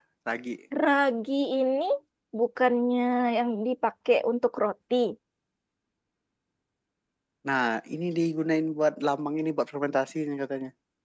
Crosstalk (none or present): none